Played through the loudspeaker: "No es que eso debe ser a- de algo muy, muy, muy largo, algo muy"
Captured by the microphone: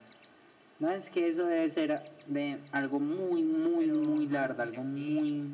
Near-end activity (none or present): present